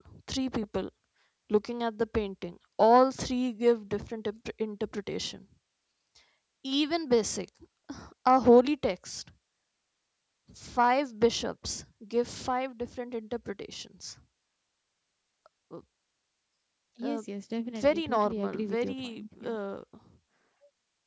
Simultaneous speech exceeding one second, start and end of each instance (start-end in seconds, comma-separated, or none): 17.8-19.6